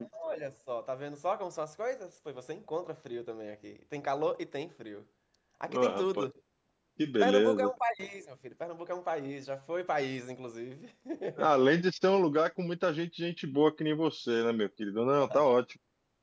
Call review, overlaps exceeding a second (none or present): none